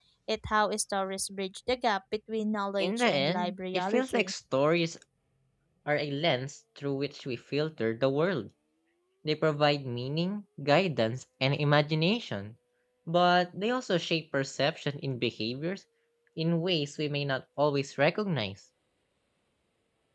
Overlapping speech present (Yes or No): Yes